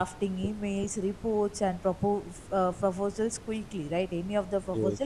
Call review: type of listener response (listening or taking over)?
listening